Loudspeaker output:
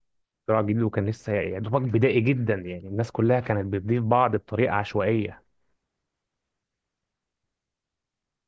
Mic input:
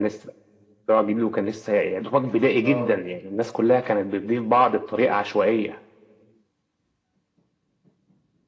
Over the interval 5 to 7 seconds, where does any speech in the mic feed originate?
echo only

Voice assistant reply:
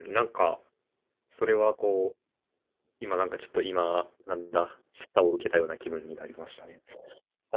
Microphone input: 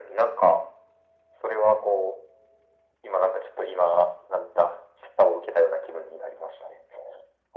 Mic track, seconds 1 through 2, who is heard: echo only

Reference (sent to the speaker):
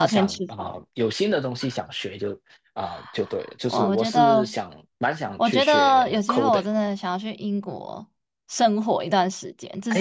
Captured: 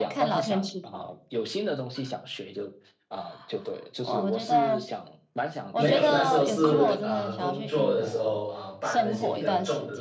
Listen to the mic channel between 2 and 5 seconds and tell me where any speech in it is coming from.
echo only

